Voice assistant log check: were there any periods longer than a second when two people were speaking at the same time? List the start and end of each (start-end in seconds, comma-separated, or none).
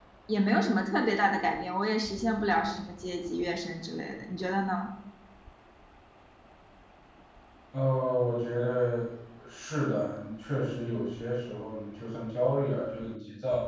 none